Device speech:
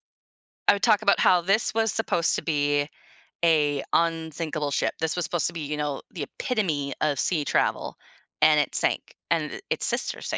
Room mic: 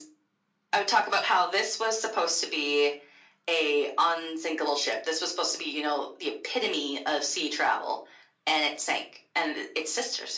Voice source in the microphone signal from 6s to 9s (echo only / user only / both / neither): echo only